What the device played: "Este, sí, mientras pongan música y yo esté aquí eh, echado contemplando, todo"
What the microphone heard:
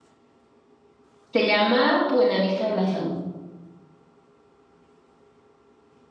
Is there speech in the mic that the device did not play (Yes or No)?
Yes